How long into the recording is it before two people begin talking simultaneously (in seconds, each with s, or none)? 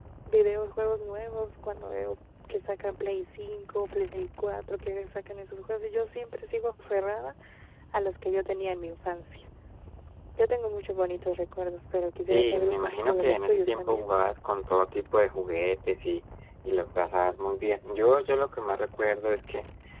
12.3 s